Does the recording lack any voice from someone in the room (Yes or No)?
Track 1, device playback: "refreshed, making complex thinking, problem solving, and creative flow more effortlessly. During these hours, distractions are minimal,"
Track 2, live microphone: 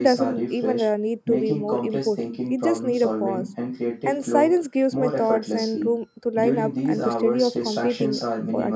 No